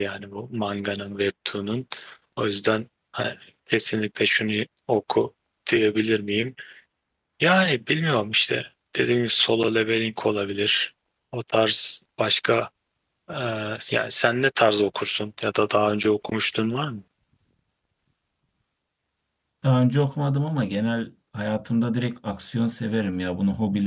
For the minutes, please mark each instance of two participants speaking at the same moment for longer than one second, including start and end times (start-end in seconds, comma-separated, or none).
none